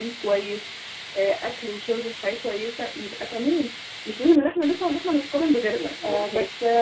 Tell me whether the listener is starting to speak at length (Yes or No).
Yes